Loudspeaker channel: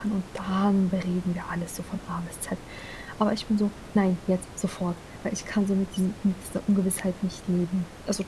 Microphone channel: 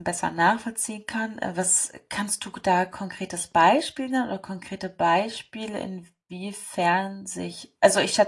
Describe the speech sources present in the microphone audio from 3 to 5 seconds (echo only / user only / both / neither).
user only